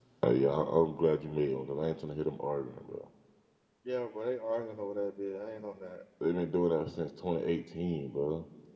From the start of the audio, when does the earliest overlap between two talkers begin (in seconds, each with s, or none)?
none